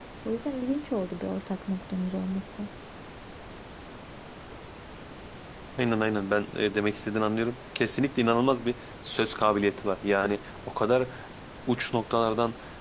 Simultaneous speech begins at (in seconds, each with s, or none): none